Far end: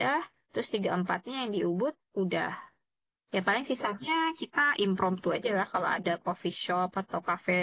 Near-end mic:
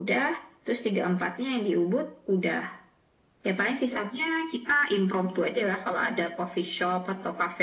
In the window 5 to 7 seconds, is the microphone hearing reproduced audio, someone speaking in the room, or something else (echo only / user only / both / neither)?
echo only